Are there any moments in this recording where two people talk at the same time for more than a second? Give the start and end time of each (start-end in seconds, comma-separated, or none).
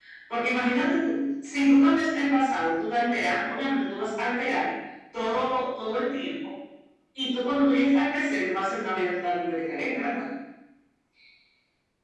none